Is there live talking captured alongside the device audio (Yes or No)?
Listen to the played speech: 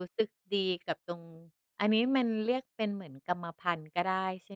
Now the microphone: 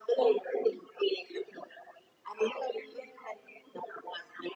No